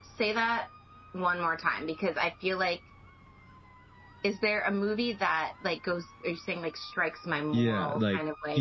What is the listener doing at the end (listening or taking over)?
taking over